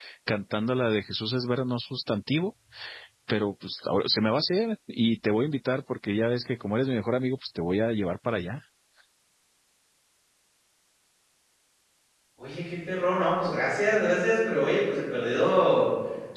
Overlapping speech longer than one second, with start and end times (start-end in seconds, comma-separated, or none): none